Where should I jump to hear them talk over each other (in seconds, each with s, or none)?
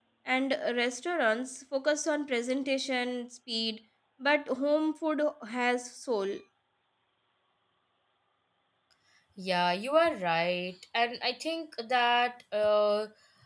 none